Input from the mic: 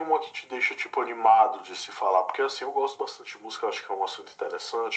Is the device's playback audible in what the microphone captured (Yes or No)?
Yes